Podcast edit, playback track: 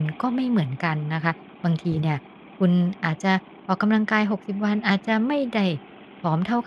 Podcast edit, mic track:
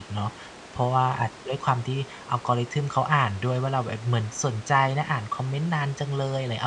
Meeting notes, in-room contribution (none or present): present